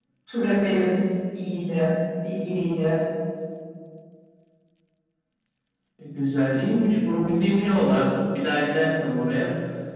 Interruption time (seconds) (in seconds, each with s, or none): none